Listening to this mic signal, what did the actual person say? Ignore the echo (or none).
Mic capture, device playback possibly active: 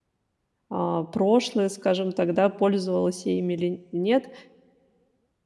а, прошлое, скажем так, да, пользовалась я ими или нет,